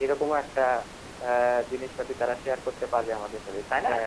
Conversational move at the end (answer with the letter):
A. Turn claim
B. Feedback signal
A